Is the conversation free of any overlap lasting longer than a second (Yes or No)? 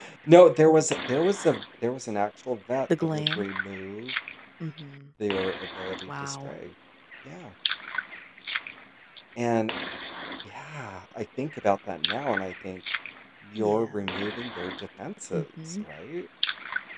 Yes